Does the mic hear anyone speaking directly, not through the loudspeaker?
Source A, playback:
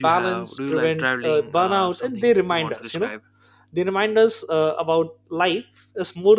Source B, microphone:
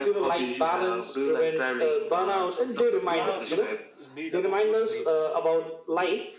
Yes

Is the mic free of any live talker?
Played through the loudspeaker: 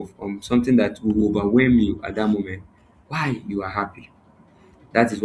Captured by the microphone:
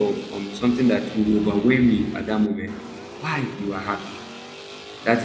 Yes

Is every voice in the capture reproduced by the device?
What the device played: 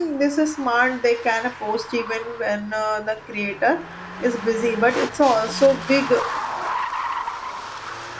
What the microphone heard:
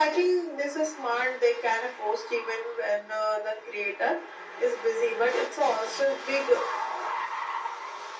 Yes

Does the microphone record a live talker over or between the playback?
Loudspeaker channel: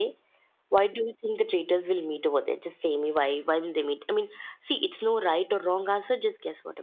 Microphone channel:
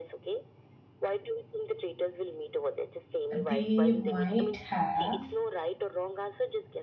Yes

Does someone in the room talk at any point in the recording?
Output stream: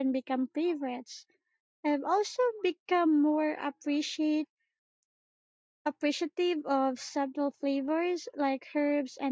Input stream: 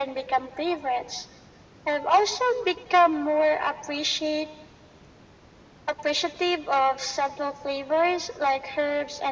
No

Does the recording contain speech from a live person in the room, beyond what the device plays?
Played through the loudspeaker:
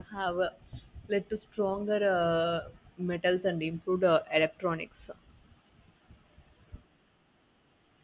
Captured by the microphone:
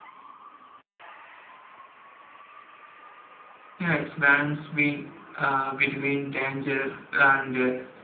Yes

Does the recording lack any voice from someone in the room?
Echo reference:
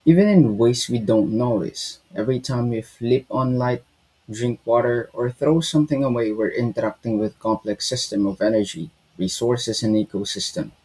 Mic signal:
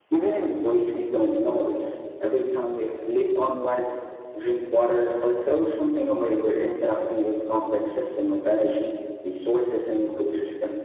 Yes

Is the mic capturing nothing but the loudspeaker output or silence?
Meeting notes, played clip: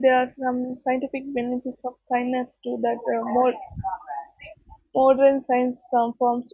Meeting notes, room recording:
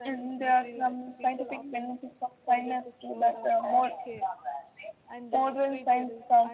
No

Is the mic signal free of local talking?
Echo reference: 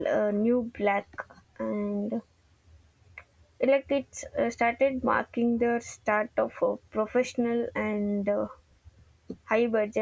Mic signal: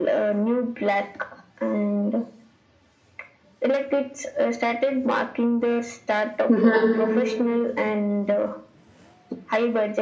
No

